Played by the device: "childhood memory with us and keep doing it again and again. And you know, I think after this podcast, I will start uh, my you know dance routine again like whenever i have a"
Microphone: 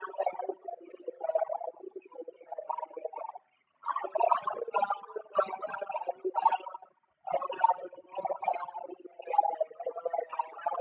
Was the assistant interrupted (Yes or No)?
No